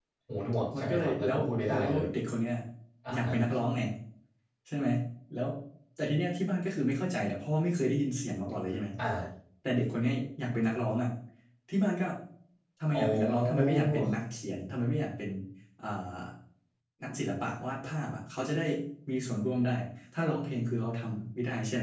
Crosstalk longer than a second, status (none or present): present